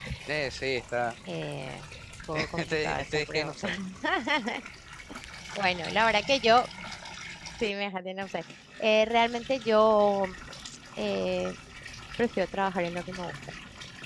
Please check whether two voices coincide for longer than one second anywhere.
Yes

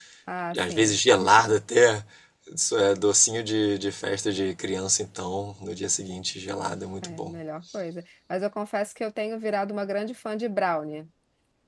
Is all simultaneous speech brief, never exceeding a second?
Yes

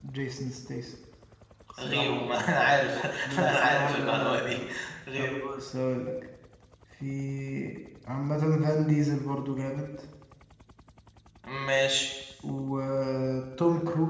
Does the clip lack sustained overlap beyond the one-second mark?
No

